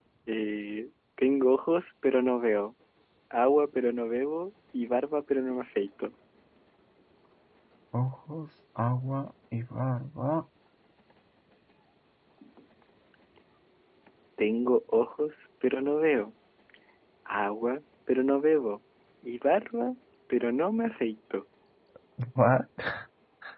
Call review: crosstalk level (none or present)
none